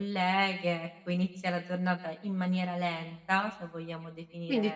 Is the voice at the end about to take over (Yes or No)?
Yes